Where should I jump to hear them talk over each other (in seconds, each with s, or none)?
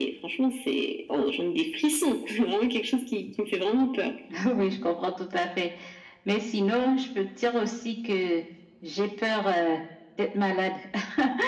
none